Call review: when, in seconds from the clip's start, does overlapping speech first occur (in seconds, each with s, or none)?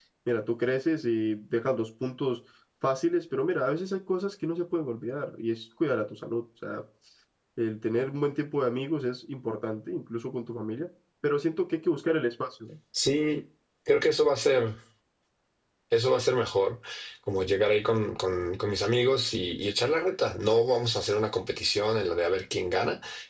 none